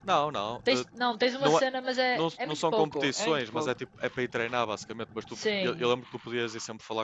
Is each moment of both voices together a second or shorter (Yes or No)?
No